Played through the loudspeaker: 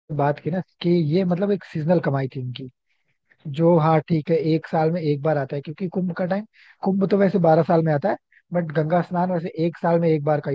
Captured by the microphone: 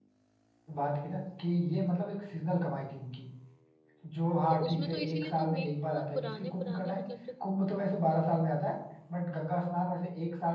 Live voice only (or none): तो उसमें तो इसीलिए तो मेन जो पुराने पुराने मतलब जो